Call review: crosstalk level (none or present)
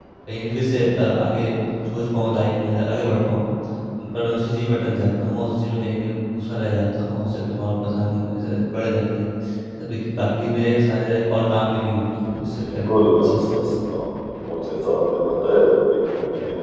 present